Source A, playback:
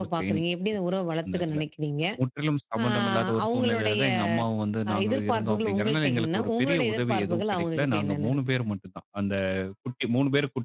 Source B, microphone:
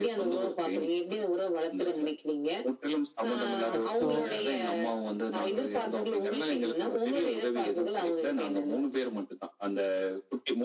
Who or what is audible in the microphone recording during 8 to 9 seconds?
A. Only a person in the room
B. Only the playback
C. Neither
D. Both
B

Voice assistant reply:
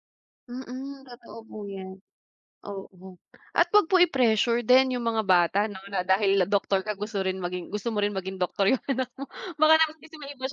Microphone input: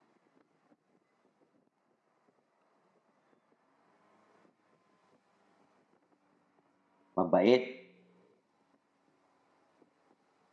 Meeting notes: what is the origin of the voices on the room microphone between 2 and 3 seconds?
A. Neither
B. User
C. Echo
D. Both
A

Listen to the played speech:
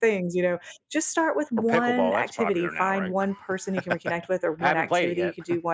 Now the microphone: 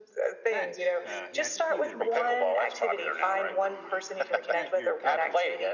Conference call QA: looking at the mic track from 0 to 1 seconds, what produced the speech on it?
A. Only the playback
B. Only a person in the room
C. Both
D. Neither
C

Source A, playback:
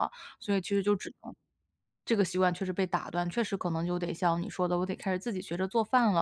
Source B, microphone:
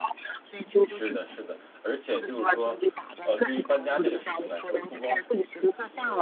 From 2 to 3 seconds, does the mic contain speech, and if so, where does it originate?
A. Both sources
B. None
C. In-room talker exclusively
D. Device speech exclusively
A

